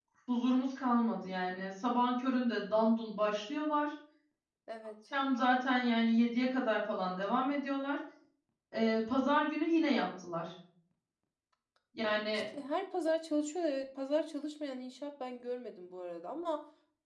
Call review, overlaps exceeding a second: none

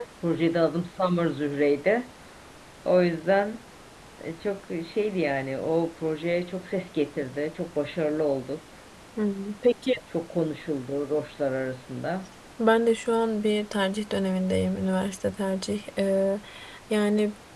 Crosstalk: none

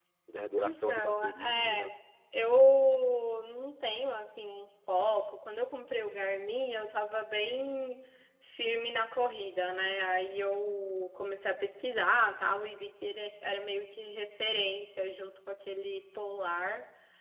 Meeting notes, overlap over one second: present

